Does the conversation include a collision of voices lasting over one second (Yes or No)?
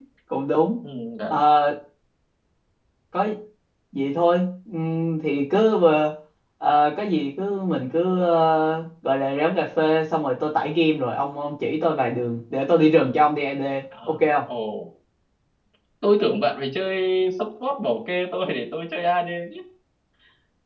No